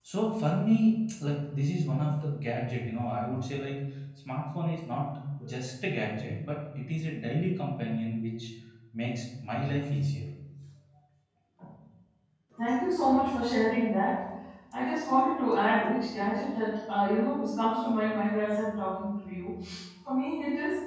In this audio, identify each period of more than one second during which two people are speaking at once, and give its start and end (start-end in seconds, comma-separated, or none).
none